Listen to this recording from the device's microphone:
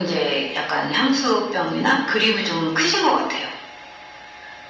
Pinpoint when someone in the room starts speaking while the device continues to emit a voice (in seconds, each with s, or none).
none